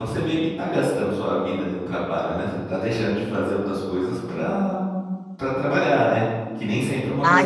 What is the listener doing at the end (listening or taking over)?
taking over